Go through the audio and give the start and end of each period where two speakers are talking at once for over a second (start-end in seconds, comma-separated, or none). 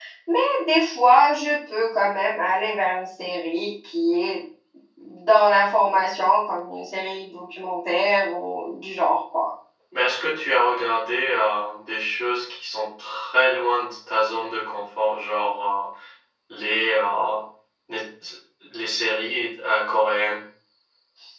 none